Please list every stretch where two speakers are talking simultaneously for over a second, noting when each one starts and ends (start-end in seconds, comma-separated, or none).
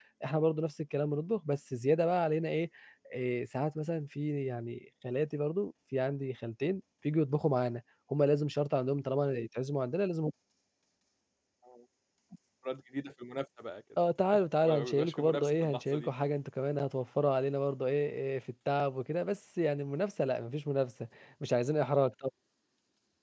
14.6-16.1